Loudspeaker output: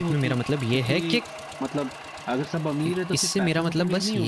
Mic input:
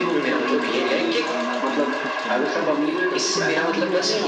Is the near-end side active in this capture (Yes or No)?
Yes